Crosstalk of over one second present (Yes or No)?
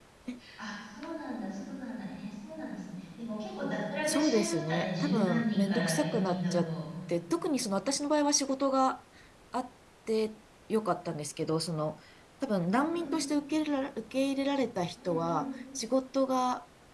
Yes